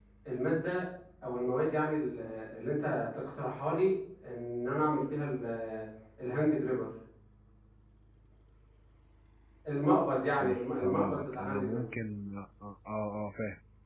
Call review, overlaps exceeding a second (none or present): present